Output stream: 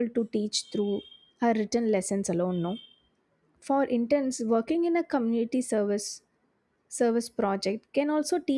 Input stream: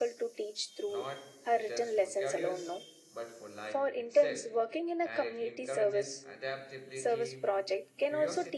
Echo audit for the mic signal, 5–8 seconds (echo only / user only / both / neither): both